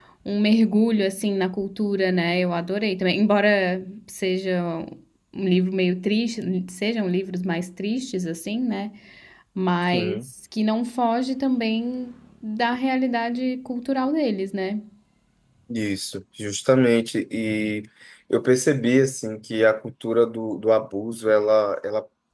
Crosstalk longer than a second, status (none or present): none